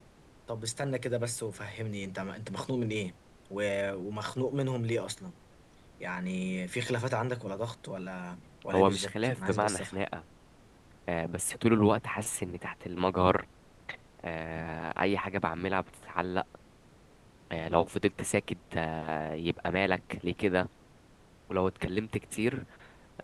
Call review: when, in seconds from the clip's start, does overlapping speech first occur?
8.7 s

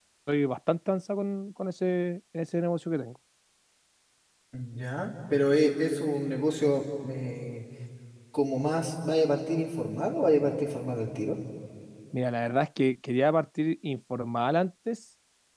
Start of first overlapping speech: none

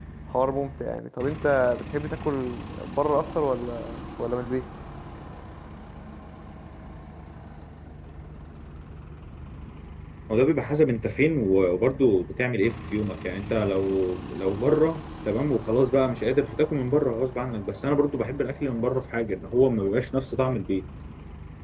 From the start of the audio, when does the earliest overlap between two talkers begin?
none

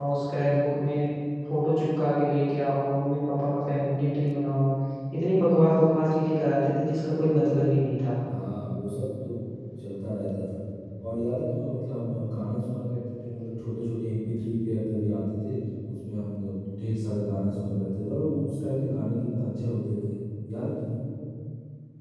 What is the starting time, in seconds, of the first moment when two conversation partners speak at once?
none

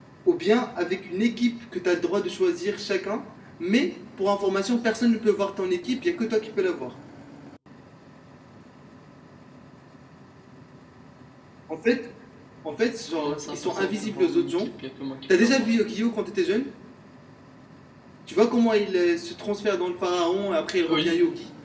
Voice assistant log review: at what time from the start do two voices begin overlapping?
13.2 s

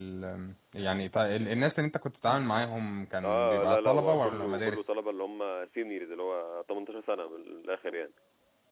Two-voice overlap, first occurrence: 3.2 s

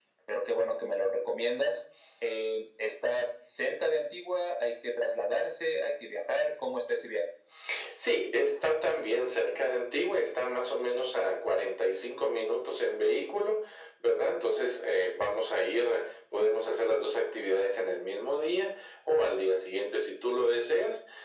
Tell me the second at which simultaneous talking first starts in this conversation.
none

